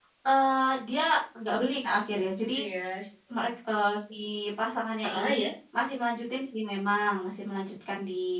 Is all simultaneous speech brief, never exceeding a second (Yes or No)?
Yes